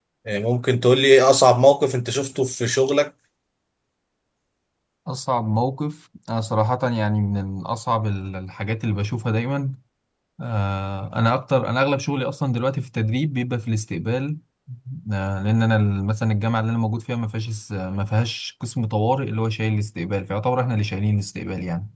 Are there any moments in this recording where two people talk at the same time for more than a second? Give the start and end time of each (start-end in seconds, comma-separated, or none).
none